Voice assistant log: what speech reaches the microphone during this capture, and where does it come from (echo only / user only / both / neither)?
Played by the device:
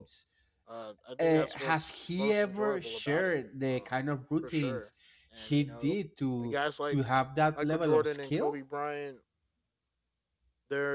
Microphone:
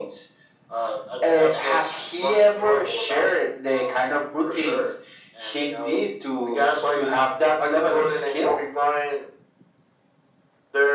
echo only